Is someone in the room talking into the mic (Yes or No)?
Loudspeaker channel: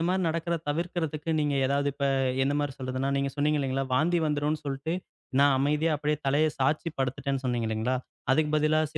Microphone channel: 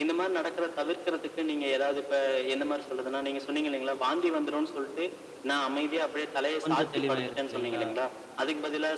Yes